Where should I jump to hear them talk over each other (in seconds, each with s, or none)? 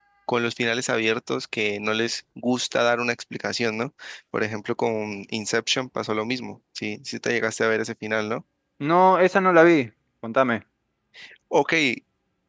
none